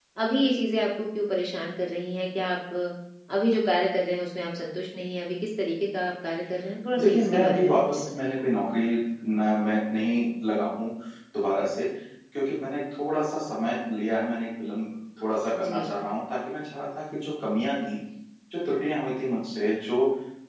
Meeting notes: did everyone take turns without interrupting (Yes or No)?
No